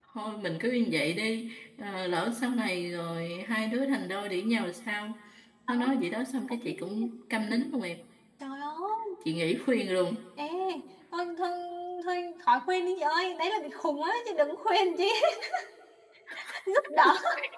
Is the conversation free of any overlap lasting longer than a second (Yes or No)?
Yes